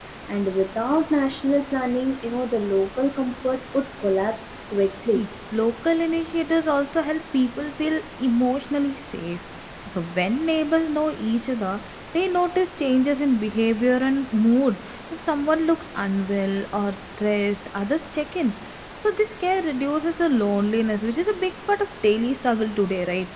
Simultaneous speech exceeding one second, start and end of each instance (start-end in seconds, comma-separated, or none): none